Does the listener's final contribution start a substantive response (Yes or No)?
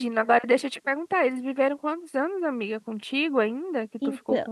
Yes